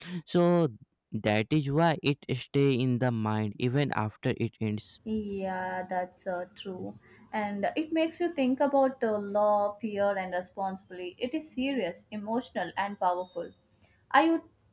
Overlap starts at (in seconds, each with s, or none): none